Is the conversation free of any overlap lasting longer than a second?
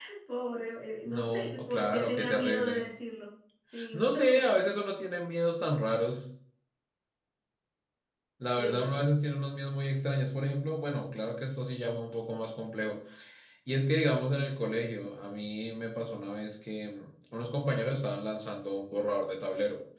No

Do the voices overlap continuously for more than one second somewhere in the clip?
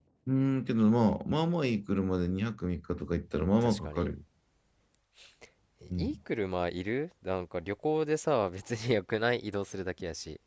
No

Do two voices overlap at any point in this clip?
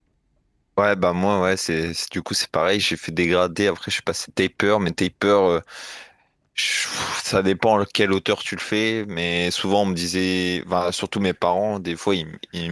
No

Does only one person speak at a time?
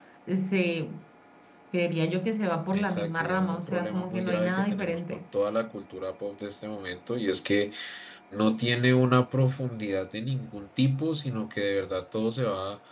No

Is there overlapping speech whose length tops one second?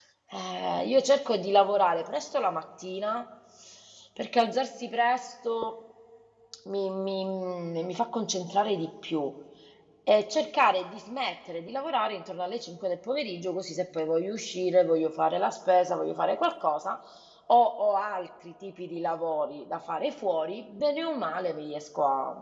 No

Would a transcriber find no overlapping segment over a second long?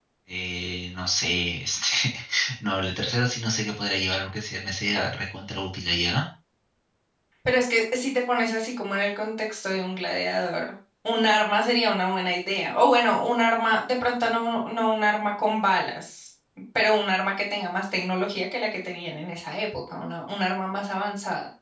Yes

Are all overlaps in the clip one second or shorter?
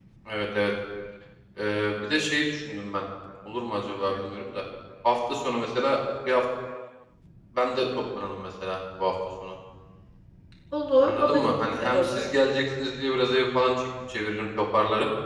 No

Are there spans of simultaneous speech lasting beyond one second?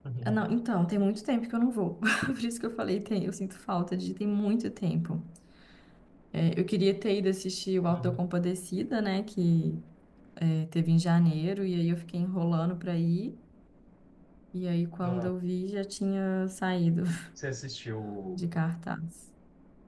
No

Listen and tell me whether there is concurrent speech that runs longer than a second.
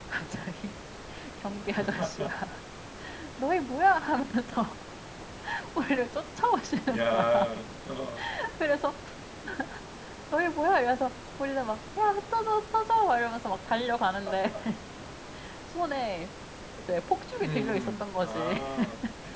Yes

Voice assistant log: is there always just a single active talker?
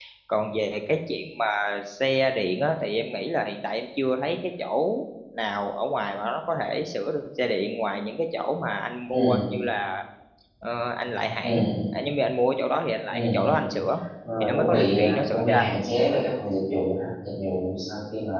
No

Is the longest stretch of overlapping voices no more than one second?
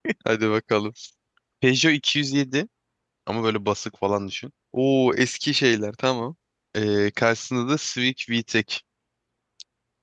Yes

